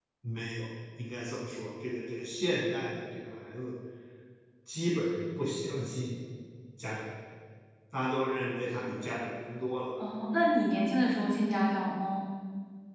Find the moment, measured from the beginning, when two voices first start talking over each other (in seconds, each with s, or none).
none